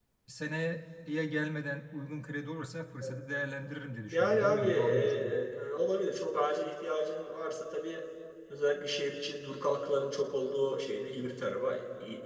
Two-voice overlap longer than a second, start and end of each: 4.1-5.4

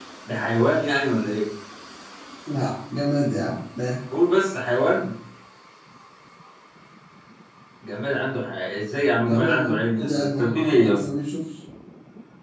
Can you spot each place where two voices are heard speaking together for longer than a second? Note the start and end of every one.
9.3-11.1

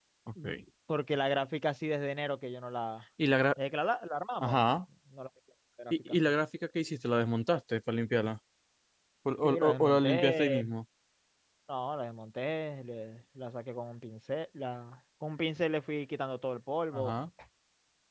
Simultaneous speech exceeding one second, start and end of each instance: 9.4-10.6

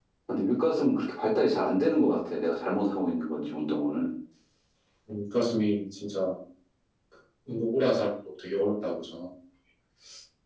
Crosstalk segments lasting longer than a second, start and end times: none

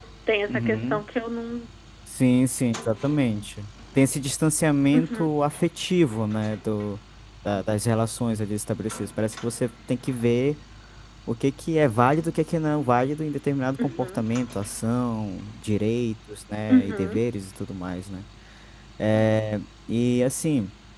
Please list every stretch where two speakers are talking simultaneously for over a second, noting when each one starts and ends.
none

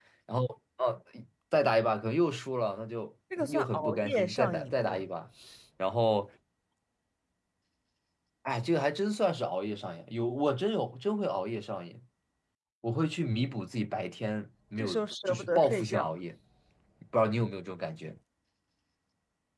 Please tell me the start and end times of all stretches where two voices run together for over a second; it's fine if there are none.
3.4-5.0, 14.8-16.1

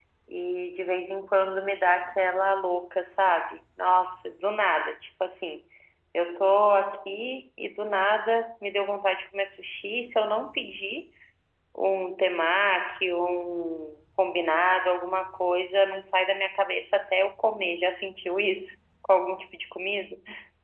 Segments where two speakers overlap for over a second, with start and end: none

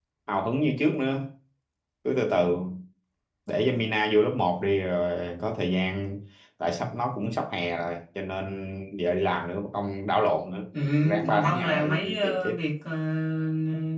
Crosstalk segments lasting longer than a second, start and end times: 11.2-12.6

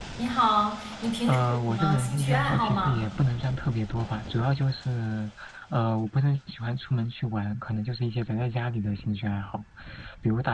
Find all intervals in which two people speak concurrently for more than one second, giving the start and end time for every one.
1.3-3.0

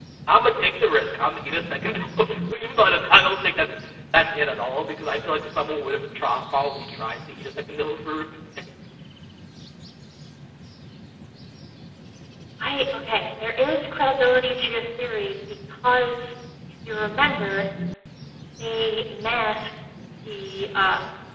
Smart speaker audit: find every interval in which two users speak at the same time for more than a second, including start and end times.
none

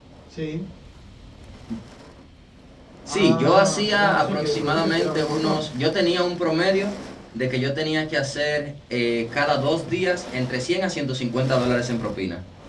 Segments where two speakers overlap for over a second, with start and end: 3.1-5.6

